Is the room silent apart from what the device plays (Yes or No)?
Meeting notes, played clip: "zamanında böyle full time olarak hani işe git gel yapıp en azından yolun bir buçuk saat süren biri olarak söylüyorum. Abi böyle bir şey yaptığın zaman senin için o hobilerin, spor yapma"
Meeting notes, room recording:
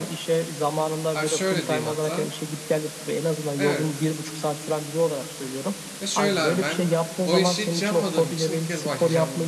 No